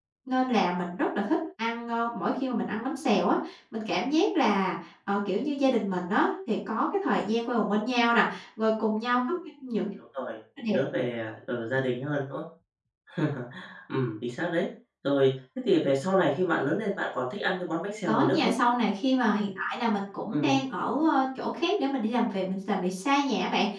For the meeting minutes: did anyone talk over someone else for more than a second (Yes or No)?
No